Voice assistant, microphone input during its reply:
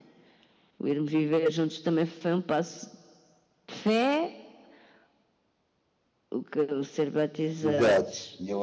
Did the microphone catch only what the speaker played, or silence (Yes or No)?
No